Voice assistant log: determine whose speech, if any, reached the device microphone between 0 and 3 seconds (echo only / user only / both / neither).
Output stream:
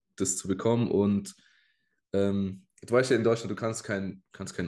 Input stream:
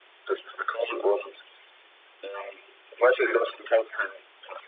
echo only